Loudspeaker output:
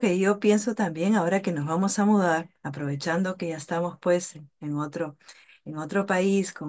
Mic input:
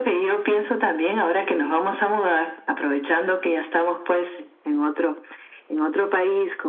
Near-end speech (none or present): none